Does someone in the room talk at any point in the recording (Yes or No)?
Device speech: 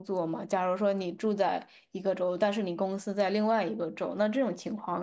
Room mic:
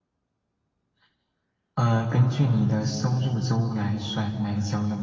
Yes